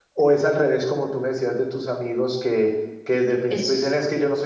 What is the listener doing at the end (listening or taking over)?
listening